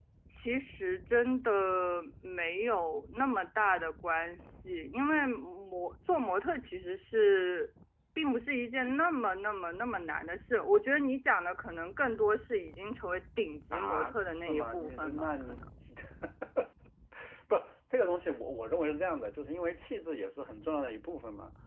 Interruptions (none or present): present